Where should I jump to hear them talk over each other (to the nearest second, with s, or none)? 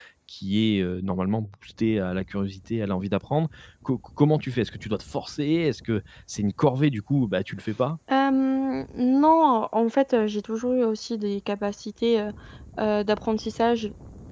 none